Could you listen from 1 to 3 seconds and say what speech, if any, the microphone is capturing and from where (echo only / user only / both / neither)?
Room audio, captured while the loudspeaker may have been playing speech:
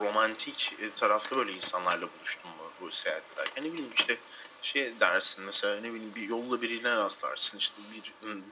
echo only